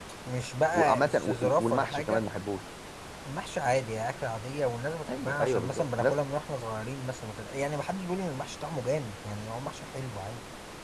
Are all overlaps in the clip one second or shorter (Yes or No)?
No